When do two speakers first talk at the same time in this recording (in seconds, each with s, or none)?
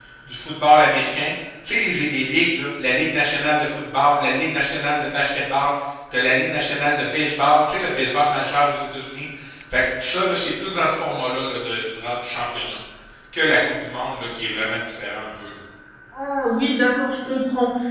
none